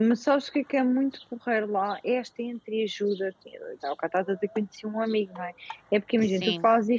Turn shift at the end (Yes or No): No